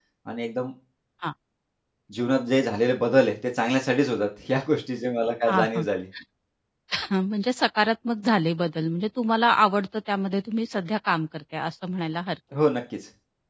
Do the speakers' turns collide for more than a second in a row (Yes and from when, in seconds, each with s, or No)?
No